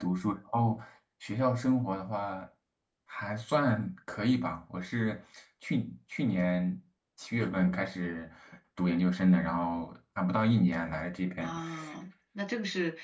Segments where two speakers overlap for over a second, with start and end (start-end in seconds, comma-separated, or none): none